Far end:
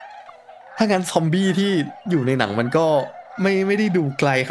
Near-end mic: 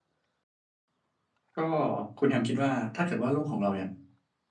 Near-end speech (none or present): present